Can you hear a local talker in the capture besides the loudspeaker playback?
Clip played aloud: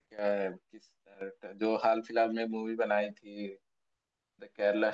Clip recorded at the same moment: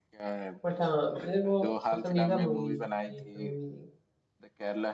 Yes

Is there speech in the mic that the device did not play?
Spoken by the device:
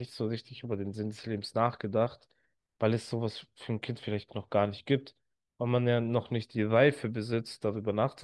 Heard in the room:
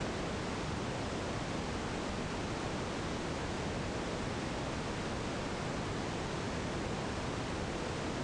No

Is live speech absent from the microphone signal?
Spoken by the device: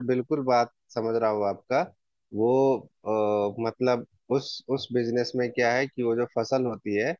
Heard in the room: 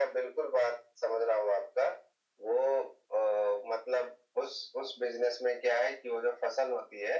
Yes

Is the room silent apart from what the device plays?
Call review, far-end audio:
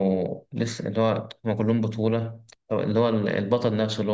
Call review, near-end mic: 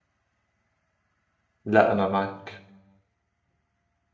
No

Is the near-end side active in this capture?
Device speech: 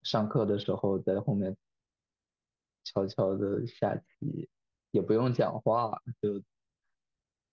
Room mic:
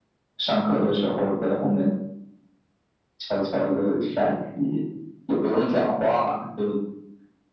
No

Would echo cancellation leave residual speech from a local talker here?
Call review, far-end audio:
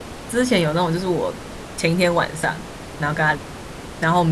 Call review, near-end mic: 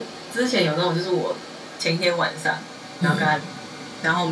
Yes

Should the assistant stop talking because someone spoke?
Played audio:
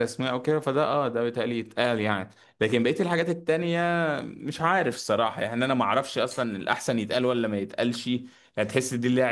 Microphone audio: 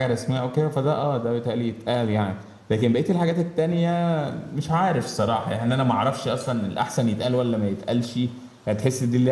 No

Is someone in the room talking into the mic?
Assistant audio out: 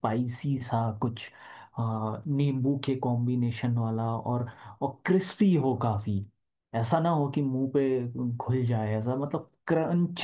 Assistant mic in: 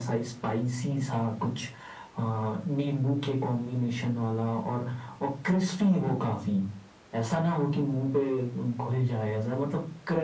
No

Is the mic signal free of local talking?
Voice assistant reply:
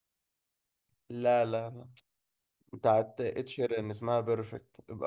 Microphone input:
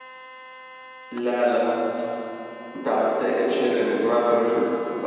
No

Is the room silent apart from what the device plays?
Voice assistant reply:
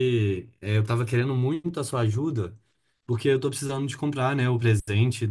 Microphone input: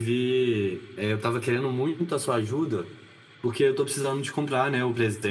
Yes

